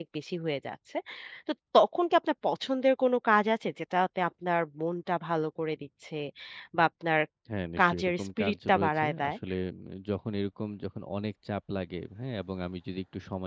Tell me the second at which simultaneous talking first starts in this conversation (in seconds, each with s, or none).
7.8 s